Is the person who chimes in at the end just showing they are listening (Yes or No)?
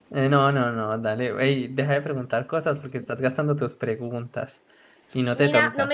No